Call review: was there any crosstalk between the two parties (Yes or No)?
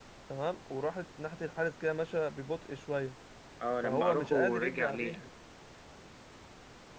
Yes